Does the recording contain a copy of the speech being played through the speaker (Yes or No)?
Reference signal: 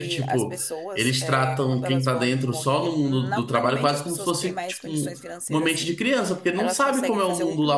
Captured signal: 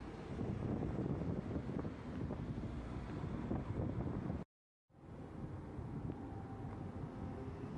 No